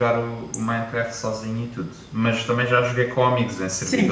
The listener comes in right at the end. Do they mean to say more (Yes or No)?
Yes